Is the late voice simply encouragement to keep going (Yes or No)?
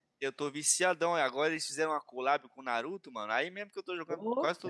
Yes